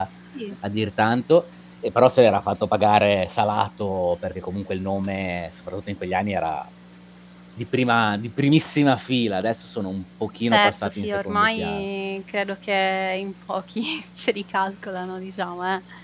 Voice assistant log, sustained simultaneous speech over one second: present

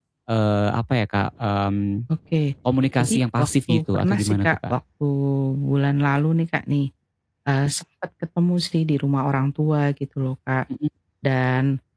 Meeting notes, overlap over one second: present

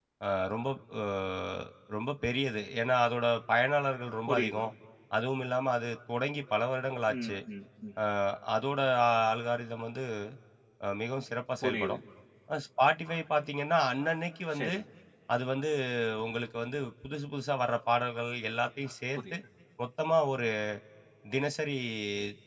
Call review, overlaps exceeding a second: none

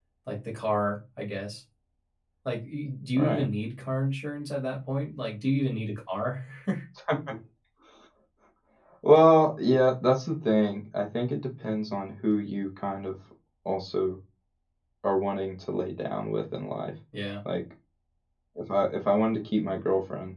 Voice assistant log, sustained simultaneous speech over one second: none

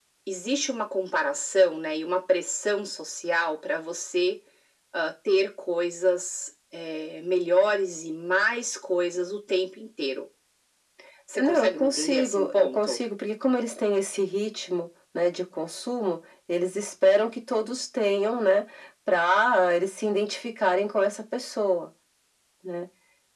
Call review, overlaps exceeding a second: present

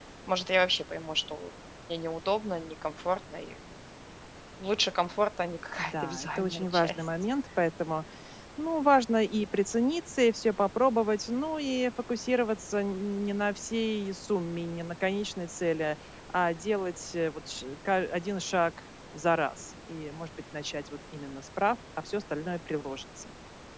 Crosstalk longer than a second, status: present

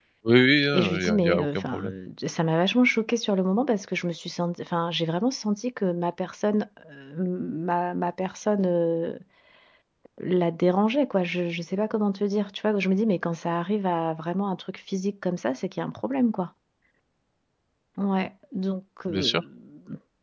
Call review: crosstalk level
present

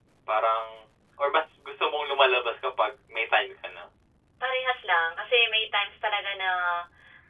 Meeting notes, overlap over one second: none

